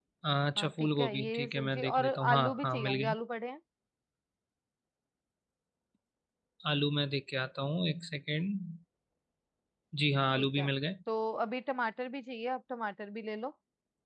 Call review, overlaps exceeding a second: present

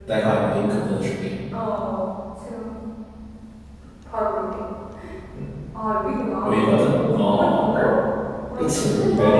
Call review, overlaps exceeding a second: present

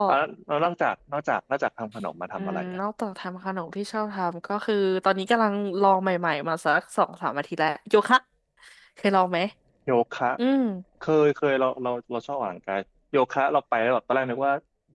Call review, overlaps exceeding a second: none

